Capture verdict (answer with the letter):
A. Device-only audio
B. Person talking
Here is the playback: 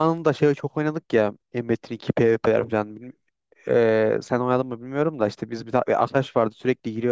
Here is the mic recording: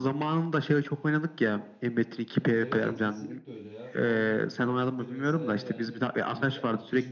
B